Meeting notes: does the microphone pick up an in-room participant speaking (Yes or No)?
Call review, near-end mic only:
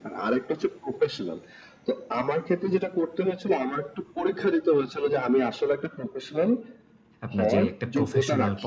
Yes